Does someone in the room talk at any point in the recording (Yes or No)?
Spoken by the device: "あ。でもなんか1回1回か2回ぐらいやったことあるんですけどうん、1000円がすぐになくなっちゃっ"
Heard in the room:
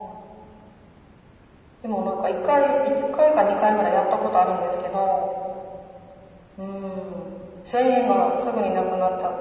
No